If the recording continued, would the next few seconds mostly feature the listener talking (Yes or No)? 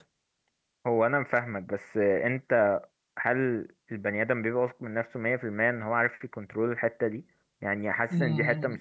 No